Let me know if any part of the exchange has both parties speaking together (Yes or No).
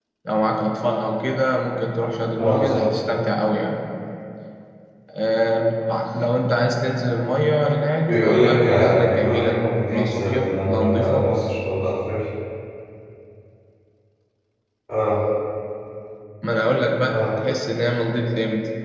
Yes